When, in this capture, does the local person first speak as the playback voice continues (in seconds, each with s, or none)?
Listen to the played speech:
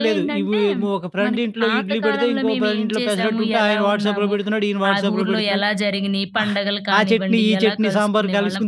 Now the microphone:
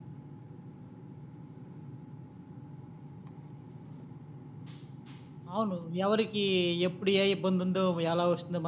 5.5 s